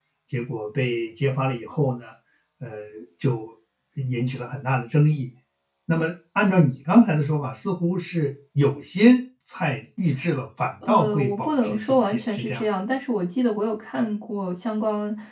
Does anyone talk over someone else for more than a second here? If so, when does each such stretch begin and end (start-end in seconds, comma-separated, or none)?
10.9-12.6